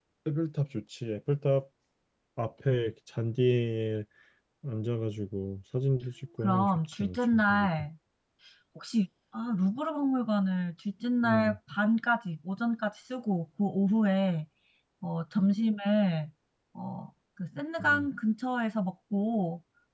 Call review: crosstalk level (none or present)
present